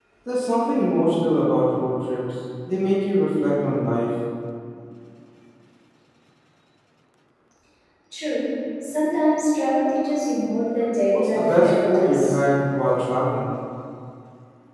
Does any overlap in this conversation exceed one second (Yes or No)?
Yes